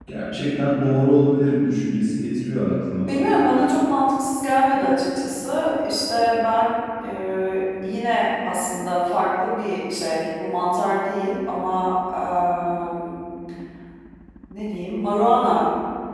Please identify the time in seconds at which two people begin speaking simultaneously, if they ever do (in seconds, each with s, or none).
none